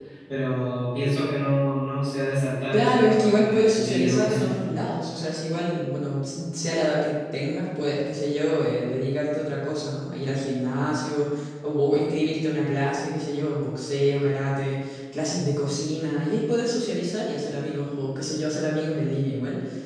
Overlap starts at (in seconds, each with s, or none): 2.7 s